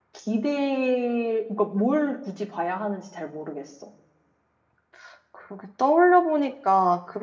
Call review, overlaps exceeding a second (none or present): none